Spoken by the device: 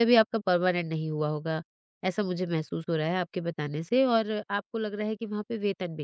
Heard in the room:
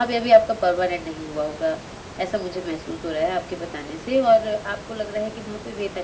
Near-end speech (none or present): none